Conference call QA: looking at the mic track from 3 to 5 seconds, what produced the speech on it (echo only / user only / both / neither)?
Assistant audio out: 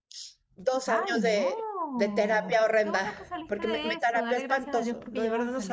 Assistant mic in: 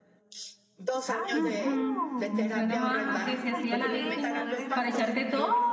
both